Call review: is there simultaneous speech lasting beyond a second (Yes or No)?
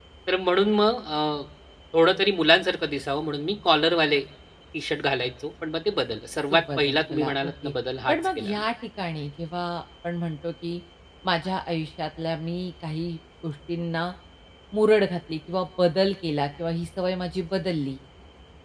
Yes